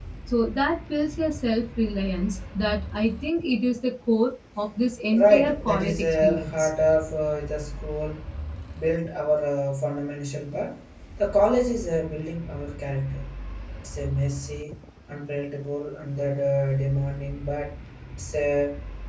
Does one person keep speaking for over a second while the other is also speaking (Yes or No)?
Yes